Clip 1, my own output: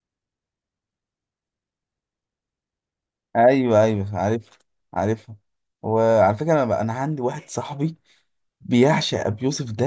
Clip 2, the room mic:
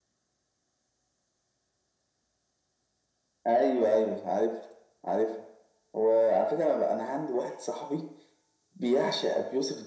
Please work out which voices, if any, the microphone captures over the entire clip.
echo only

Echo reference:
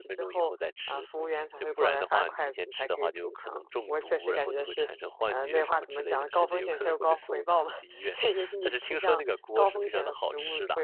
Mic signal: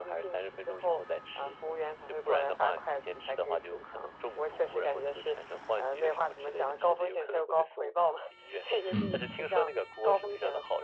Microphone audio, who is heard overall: both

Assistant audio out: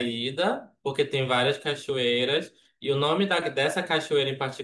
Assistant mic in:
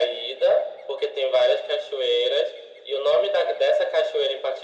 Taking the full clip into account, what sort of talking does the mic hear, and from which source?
echo only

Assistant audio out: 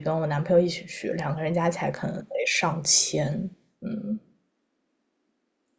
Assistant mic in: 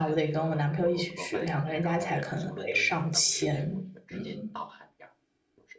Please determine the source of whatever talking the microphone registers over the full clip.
both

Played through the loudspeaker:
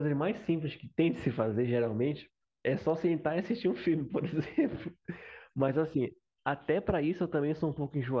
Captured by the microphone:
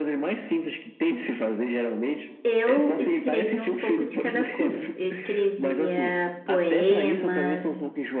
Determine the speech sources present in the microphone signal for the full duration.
both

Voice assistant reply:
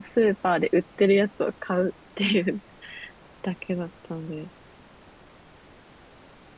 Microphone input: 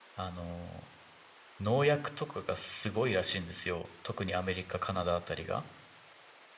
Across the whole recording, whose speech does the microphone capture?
user only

